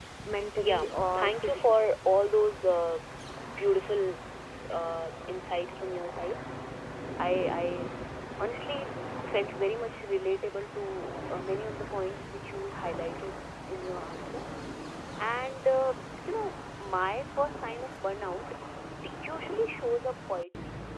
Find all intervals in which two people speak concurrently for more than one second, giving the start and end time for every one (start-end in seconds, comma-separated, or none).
0.6-2.0